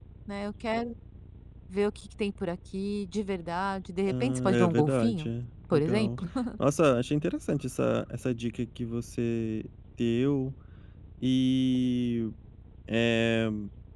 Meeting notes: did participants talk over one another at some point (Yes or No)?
Yes